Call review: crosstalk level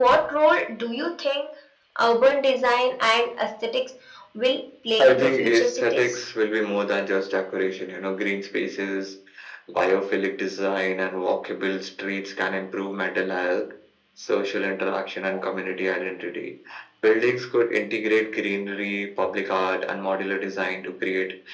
present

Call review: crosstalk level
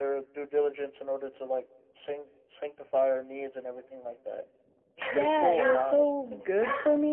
present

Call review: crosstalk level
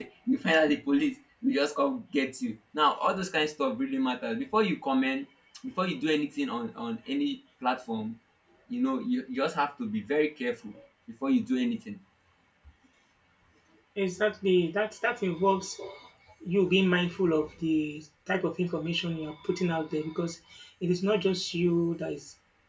none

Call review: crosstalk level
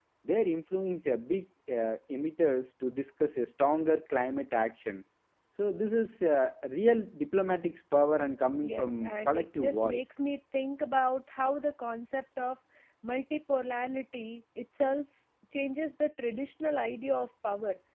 present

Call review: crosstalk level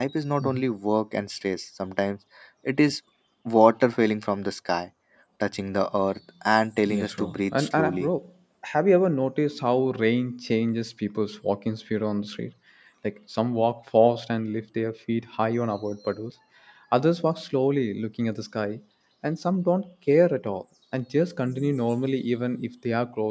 present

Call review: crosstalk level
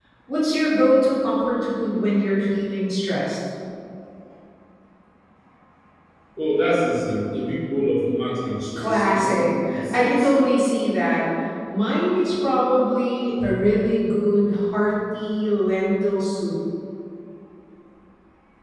present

